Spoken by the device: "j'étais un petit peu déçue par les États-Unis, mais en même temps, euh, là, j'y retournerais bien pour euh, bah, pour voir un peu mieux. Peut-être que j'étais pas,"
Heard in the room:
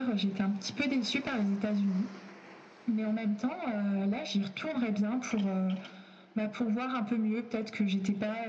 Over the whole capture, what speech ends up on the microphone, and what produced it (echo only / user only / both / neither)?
echo only